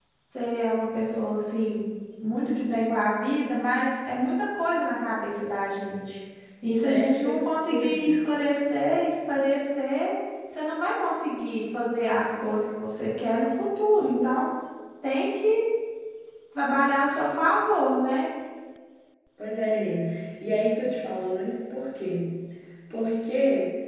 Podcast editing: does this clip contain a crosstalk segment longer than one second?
Yes, from 6.9 s

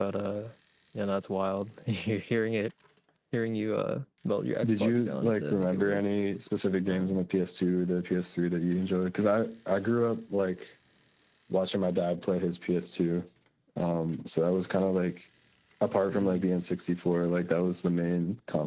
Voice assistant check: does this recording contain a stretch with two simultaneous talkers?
Yes, from 4.6 s

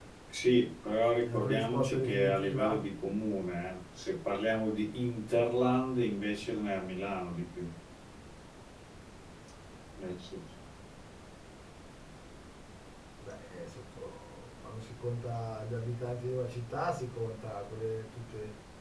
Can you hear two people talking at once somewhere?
Yes, from 1.2 s

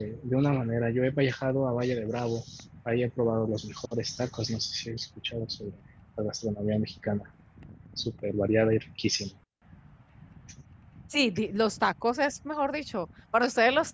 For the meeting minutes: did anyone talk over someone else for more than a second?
No

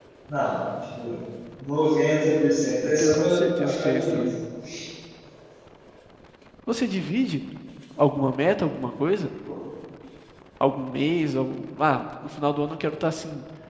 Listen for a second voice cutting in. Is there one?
Yes, from 2.8 s

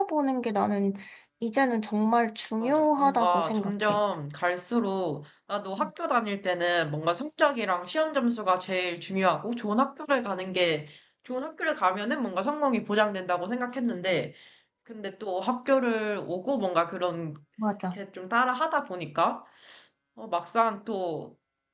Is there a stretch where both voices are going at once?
Yes, from 2.6 s

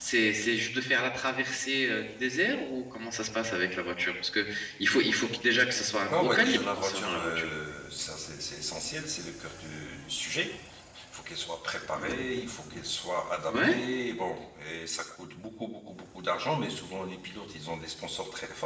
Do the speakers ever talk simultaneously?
Yes, from 6.1 s

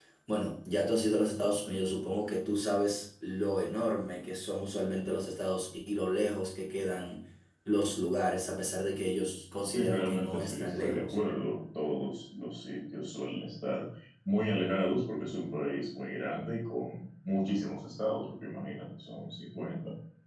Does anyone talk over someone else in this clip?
Yes, from 9.6 s

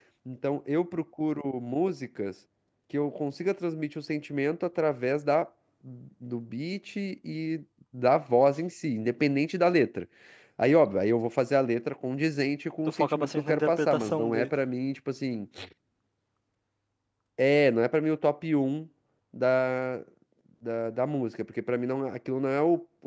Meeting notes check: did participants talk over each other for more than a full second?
Yes, from 13.0 s

